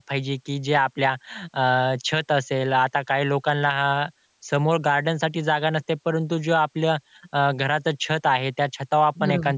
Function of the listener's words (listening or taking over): listening